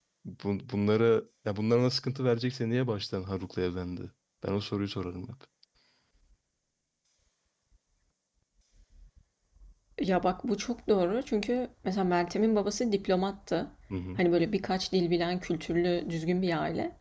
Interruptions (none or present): none